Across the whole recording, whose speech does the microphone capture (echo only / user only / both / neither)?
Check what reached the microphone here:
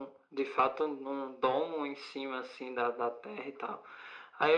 echo only